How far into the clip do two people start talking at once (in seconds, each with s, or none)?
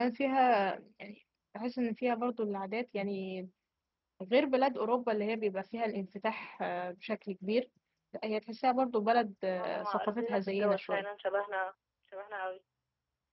9.6 s